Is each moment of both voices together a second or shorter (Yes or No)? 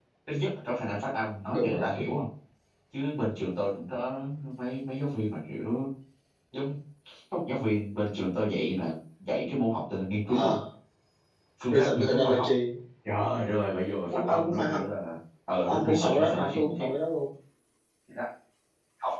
No